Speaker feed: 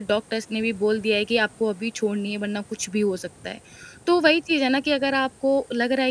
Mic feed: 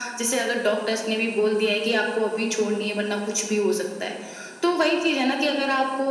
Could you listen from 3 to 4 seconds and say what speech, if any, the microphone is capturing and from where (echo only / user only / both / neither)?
echo only